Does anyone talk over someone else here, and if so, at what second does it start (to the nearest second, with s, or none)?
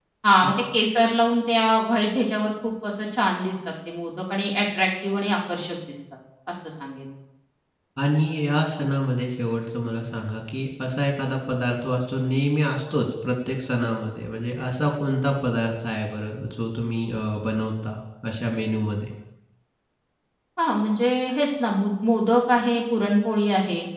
none